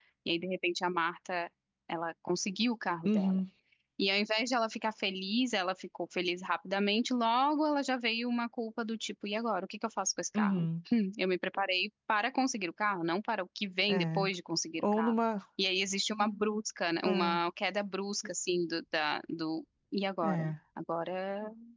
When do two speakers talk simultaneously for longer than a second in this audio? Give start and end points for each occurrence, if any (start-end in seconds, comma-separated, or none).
none